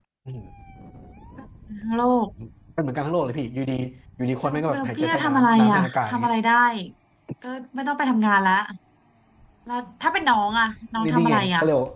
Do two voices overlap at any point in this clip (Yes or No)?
Yes